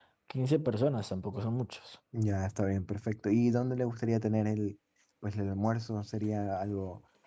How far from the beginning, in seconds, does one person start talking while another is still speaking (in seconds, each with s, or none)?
none